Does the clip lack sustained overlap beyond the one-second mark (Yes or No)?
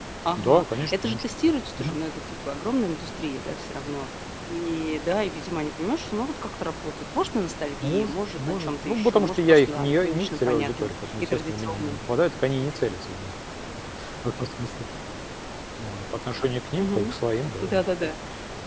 No